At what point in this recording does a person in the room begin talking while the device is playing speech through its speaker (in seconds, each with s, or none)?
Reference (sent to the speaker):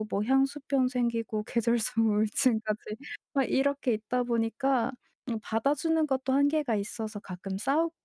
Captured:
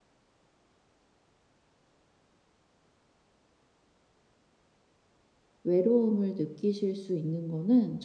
5.6 s